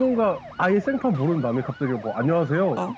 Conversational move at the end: listening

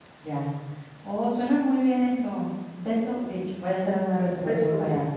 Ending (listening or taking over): taking over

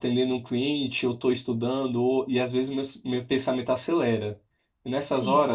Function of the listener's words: listening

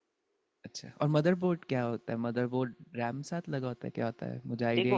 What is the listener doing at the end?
taking over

